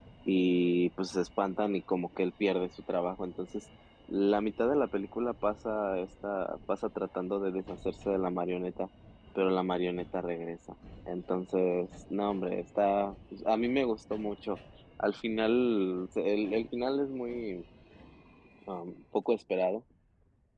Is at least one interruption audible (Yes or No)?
No